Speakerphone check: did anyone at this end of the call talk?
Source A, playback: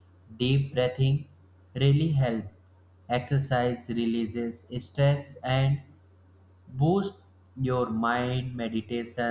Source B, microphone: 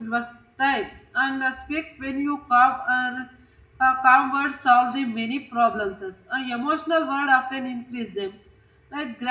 Yes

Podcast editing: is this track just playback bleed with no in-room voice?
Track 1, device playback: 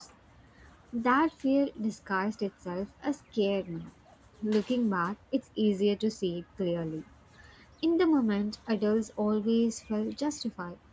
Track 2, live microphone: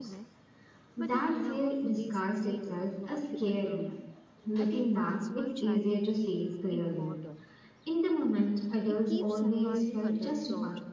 No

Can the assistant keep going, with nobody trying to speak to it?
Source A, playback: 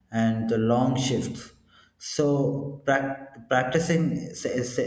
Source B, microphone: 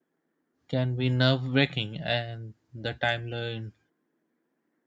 No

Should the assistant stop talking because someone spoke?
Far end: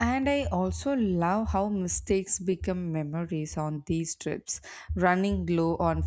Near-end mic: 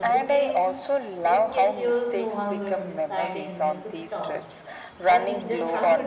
Yes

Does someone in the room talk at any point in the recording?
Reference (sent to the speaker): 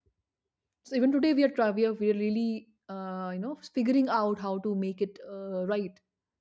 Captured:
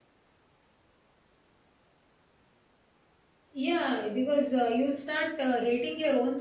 Yes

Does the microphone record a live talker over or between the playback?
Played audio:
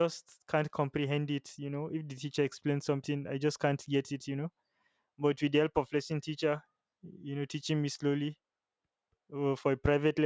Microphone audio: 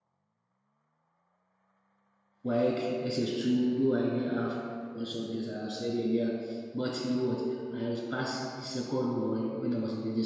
Yes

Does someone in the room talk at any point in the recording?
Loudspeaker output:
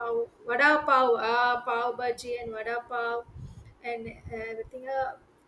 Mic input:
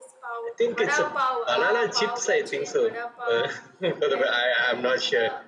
Yes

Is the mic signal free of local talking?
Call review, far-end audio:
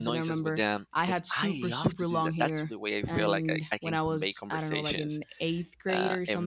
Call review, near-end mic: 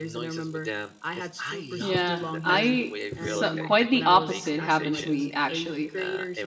No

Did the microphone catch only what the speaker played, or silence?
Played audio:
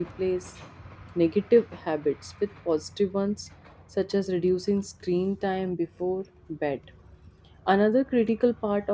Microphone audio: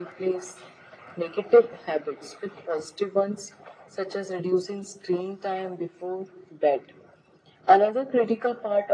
Yes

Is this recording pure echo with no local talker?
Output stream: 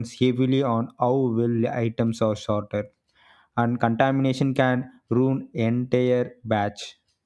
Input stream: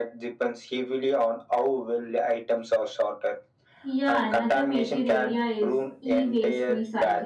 No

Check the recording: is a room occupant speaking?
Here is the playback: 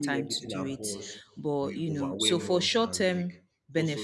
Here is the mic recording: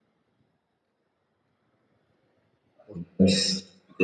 Yes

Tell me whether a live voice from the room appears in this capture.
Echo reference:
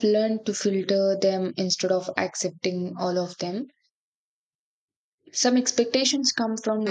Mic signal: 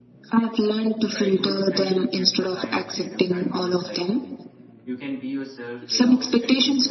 Yes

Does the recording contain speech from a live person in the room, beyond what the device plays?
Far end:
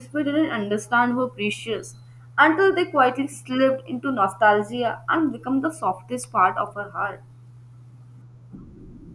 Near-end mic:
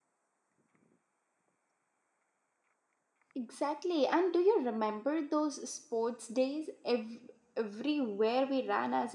Yes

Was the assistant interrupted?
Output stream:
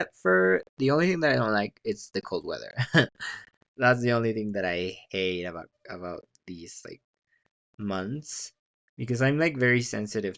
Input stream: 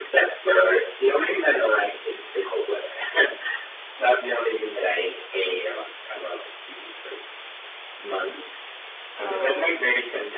Yes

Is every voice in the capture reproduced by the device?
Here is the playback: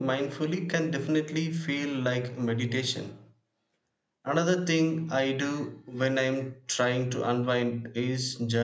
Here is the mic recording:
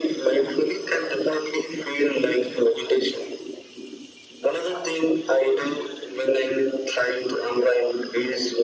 Yes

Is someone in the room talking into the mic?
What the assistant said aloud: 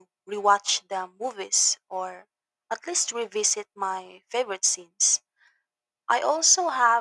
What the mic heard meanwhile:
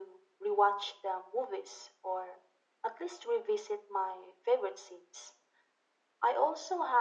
No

